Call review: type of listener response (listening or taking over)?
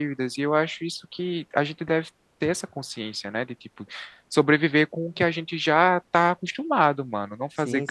taking over